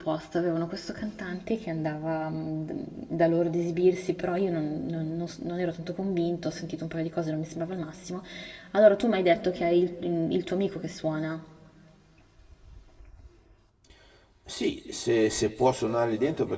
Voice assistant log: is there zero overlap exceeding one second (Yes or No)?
Yes